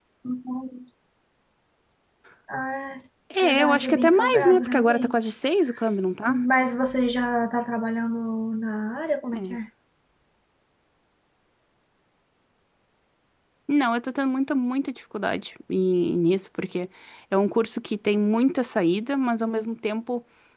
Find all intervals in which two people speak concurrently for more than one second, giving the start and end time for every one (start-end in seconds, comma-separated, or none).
3.4-5.3